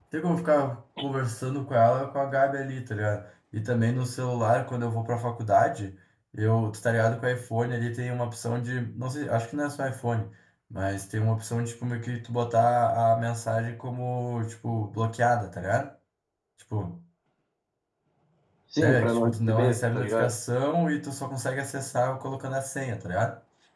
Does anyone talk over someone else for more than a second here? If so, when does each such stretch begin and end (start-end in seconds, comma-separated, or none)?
18.8-20.3